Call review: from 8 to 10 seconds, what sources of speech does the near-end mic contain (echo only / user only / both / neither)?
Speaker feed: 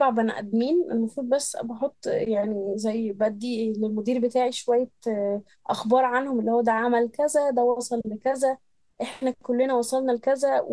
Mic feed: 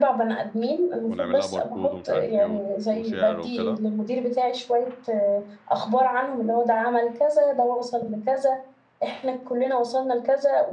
echo only